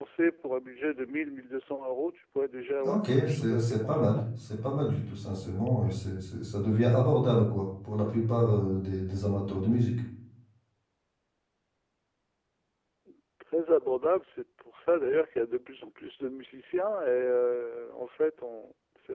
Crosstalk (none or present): present